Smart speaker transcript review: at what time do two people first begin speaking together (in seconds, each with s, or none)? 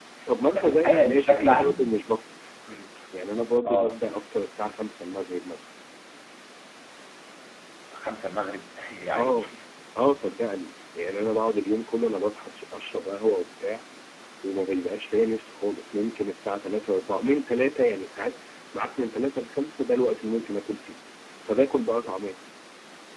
0.5 s